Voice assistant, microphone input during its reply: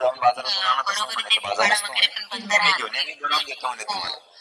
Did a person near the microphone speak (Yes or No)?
Yes